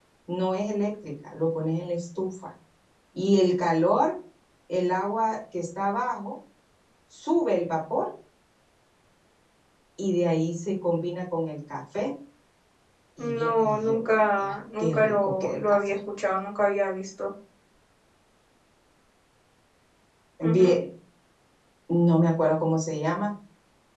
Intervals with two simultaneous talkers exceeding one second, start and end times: 13.2-16.0

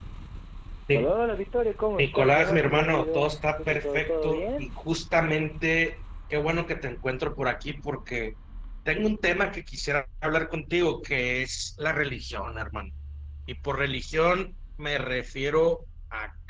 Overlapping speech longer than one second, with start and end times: 2.0-4.7

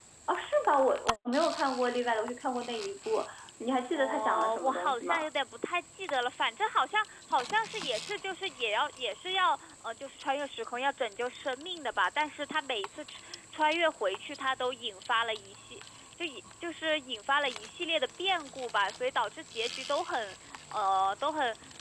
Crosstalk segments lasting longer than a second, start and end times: 3.9-5.3

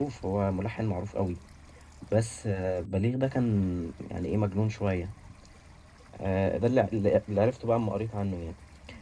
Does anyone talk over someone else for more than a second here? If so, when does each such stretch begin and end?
none

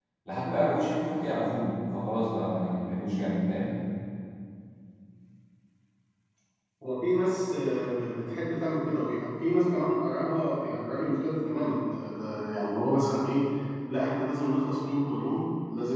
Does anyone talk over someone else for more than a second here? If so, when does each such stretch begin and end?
none

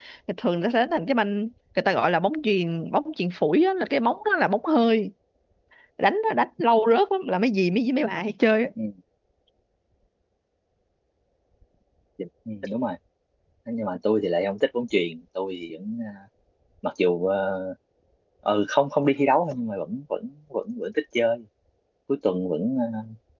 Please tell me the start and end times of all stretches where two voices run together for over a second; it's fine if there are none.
none

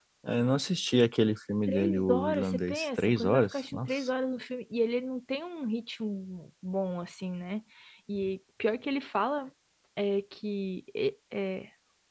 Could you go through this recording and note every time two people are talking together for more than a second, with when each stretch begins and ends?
1.7-4.1

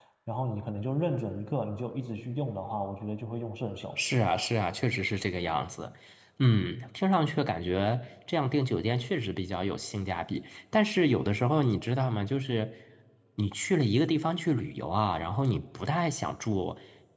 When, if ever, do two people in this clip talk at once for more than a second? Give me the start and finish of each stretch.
none

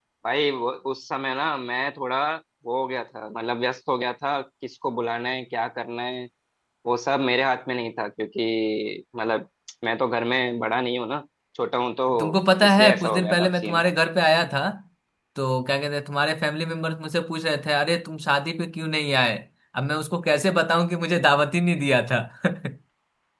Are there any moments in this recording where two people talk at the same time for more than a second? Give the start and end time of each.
12.2-13.8

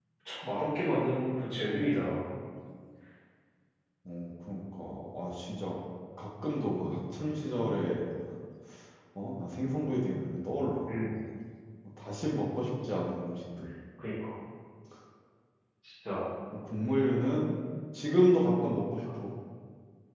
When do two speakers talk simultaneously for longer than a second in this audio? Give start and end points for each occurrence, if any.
none

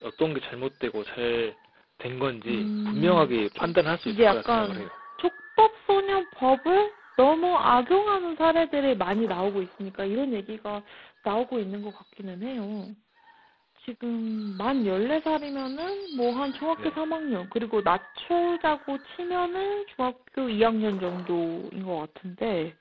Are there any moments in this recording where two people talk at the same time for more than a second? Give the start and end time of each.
2.5-4.9

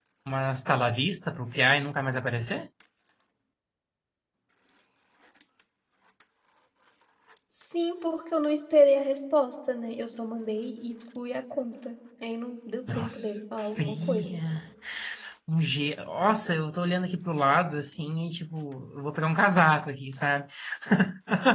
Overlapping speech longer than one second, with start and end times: 12.9-14.3

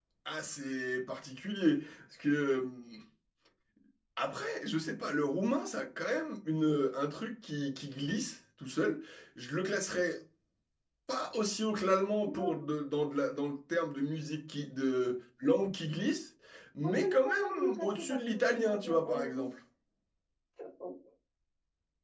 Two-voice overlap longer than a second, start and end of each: 16.8-19.4

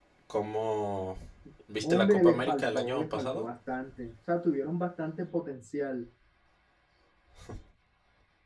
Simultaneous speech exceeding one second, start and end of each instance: 1.8-3.5

